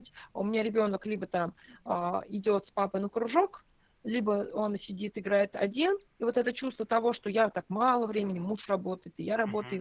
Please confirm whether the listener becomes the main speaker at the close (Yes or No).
No